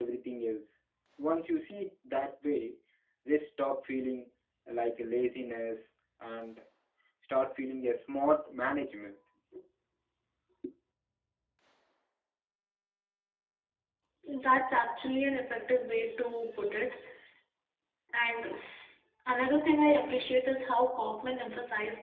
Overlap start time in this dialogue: none

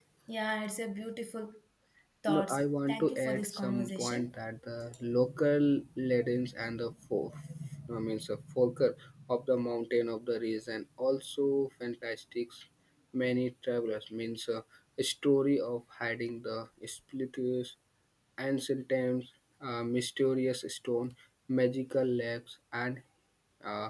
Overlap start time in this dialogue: 2.3 s

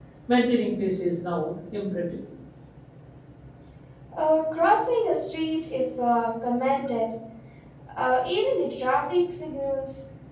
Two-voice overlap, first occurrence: none

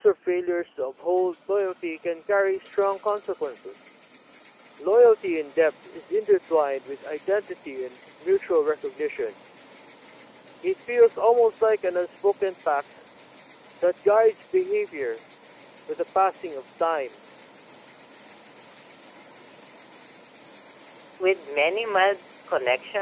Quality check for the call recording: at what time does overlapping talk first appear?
none

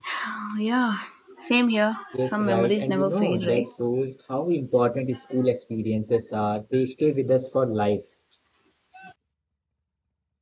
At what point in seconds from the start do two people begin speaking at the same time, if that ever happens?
2.2 s

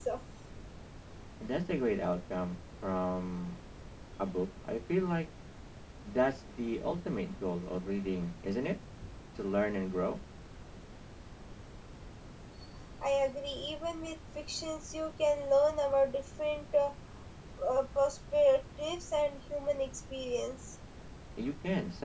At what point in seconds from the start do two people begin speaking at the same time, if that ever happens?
none

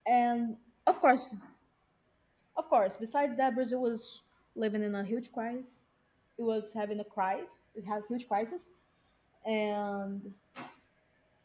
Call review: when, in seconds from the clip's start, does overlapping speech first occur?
none

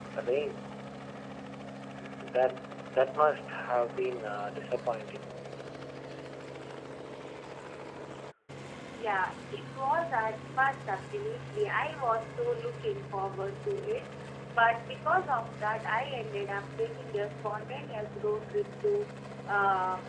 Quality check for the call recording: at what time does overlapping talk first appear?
none

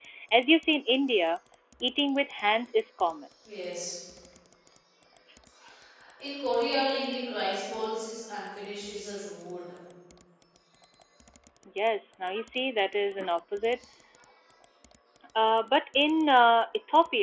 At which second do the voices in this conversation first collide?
none

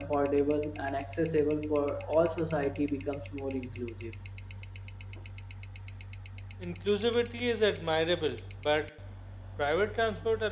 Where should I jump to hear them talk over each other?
none

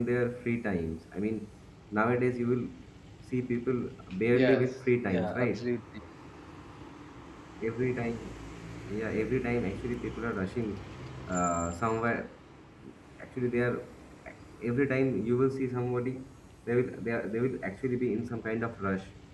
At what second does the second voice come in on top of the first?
4.3 s

